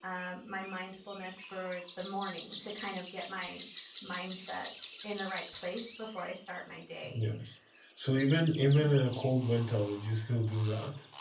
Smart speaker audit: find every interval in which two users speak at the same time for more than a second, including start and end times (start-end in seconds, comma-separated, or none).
none